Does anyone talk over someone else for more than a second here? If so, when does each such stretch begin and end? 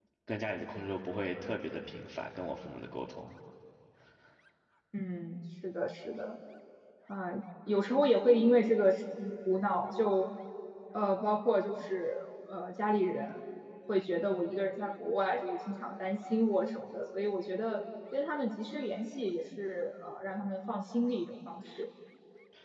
none

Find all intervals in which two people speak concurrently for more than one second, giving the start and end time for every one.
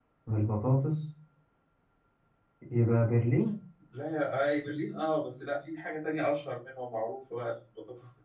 none

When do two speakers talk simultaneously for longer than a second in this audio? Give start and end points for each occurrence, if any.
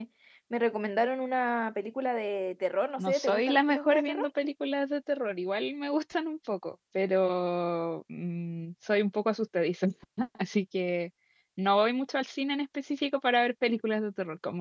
3.0-4.3

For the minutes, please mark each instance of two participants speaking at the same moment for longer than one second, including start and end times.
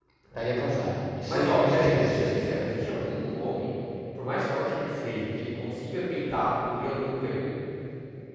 1.3-2.7

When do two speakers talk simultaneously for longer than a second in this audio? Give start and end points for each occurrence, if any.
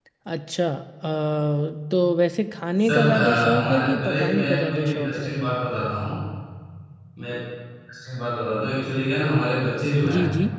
2.8-5.3

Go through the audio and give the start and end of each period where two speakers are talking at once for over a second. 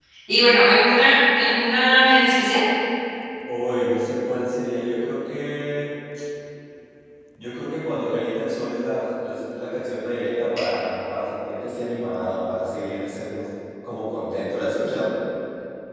none

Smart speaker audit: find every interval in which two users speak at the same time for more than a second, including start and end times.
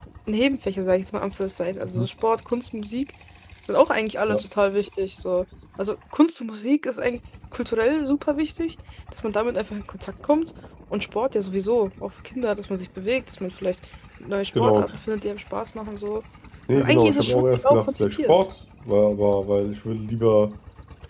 16.8-18.4

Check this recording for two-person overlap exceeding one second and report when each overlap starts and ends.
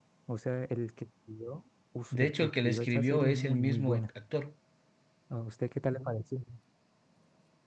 2.1-4.0

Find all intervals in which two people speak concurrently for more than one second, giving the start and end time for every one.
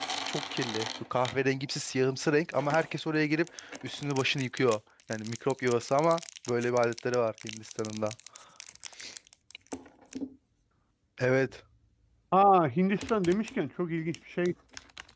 none

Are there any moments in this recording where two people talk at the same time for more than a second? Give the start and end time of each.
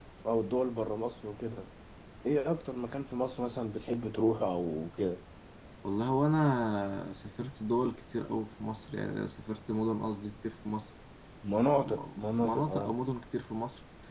11.7-12.9

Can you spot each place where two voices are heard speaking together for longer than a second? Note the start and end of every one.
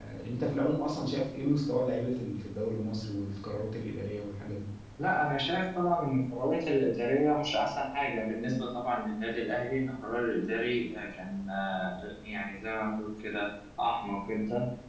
none

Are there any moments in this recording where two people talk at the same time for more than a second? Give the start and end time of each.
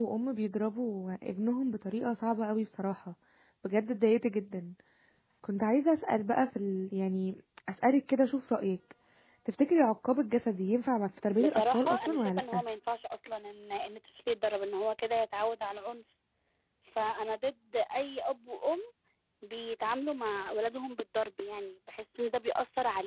11.4-12.6

